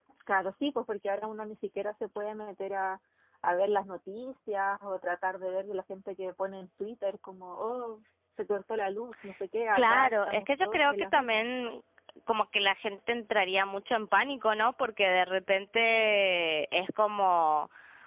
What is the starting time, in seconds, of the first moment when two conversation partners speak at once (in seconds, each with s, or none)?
9.8 s